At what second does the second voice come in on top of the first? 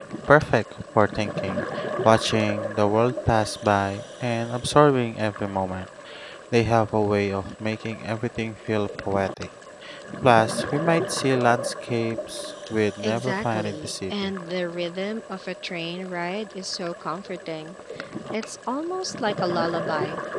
13.0 s

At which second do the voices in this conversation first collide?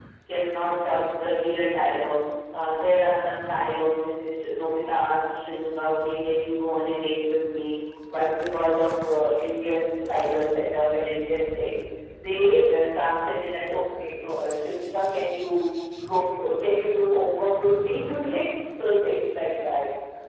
none

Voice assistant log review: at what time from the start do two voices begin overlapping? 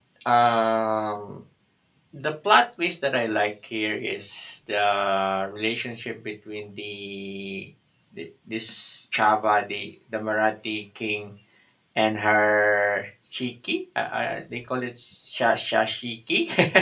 none

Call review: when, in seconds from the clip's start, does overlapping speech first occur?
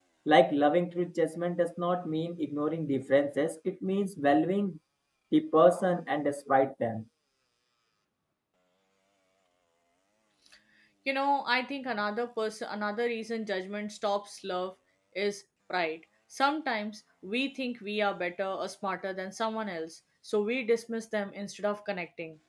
none

